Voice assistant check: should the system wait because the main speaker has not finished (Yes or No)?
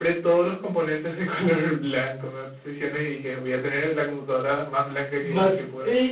No